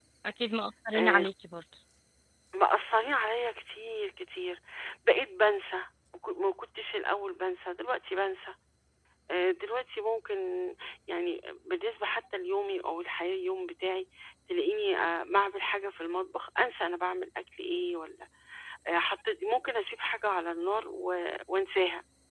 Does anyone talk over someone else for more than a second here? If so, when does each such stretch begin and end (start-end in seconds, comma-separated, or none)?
none